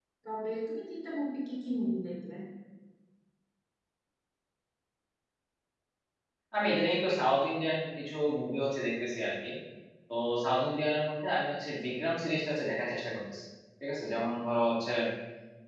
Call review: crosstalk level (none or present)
none